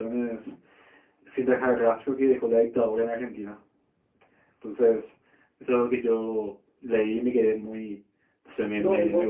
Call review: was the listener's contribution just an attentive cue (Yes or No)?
No